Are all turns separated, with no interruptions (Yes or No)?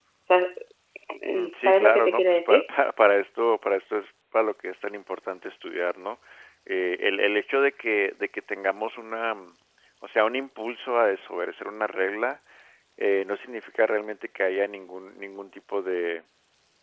No